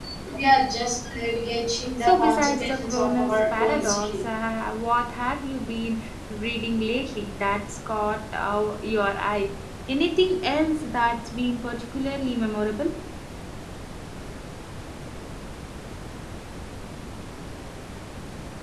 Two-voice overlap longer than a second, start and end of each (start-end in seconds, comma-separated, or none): 2.0-4.2